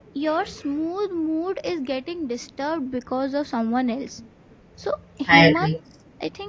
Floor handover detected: No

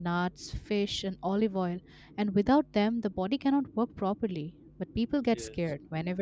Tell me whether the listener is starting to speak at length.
No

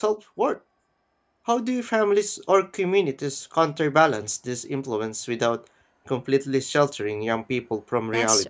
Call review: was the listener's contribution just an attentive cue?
No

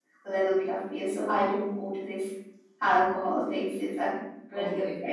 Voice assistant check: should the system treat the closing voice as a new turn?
Yes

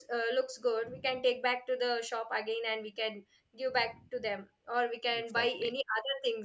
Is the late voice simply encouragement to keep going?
Yes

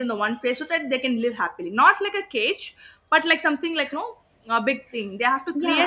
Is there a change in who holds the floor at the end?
Yes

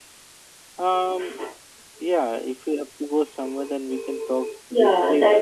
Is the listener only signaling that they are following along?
No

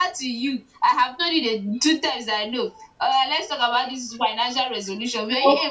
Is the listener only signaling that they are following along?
Yes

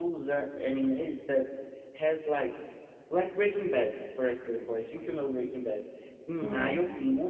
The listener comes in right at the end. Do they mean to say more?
No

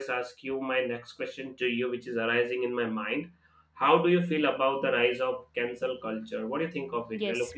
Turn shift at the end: Yes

